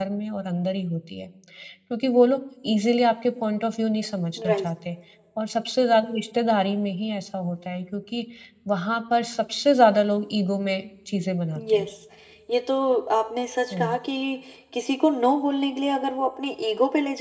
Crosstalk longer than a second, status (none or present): none